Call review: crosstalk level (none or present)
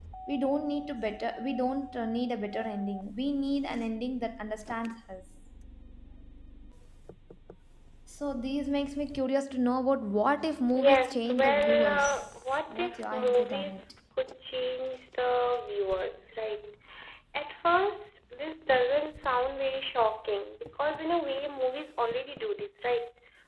present